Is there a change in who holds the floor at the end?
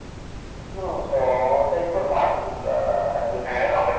Yes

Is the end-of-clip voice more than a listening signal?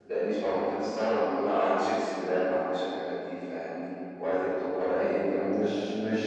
Yes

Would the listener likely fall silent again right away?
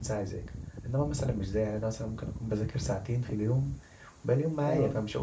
Yes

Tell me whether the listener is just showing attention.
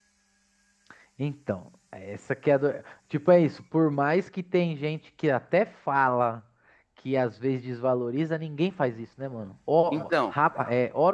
Yes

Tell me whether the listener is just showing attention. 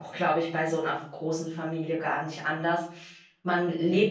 Yes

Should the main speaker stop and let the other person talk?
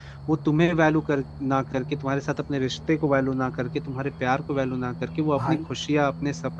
No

